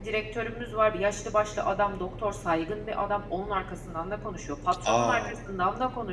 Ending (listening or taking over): listening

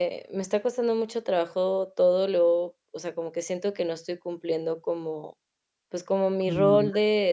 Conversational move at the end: listening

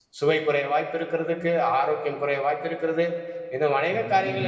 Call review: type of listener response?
listening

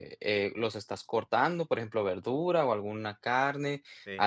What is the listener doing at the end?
listening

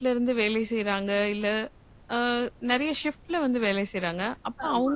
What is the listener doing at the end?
listening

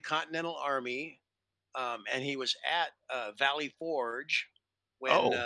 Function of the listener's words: listening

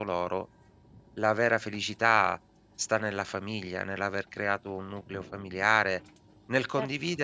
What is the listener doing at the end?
listening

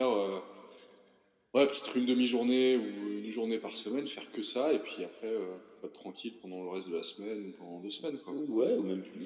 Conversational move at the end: taking over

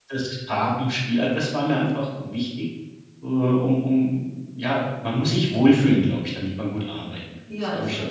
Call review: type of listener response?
taking over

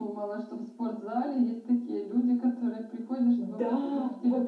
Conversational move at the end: taking over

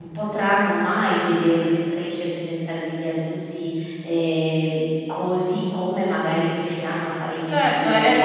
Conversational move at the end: taking over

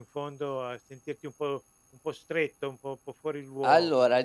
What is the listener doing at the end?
taking over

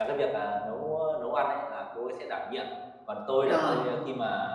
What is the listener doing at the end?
listening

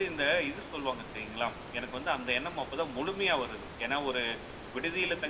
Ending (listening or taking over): listening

